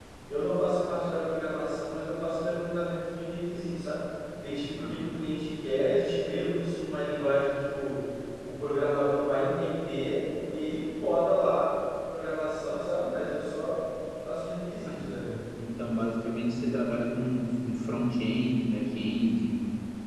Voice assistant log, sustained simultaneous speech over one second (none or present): none